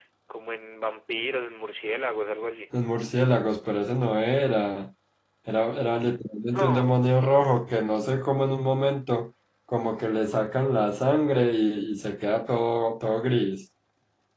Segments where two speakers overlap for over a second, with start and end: none

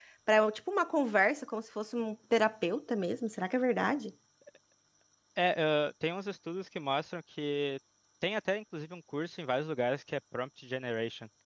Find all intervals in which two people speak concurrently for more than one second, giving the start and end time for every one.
none

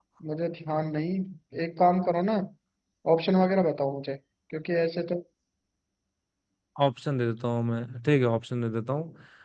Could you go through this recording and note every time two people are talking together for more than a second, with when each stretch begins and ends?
none

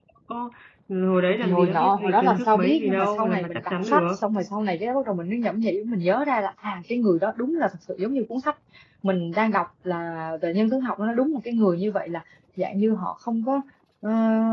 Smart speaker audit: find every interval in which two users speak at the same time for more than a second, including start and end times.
1.4-4.2

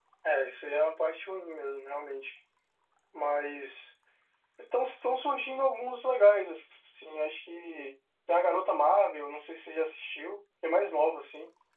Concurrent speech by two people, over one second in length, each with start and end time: none

